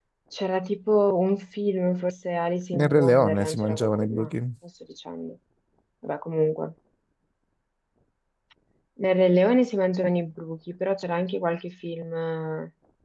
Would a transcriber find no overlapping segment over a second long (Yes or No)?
No